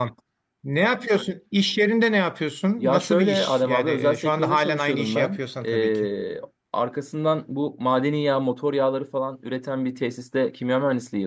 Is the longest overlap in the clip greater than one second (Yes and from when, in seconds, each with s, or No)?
Yes, from 2.8 s